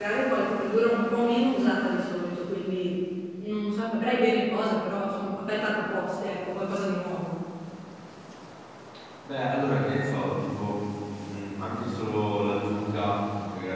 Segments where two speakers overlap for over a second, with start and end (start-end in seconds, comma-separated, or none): none